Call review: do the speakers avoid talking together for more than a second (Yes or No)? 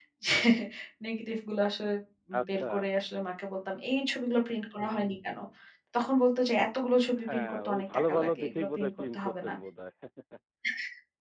No